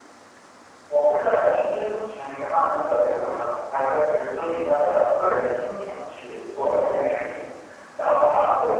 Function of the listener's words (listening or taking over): listening